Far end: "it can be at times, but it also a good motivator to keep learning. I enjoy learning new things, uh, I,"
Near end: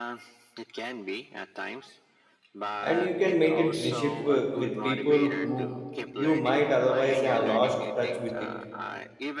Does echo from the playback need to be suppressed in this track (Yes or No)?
Yes